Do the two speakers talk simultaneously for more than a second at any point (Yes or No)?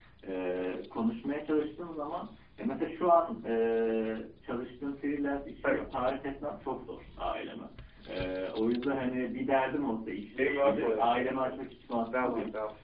Yes